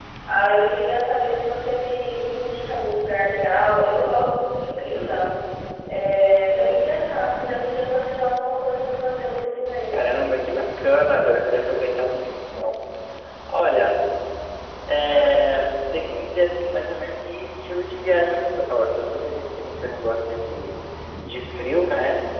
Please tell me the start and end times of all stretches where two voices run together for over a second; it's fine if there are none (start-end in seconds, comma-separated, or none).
none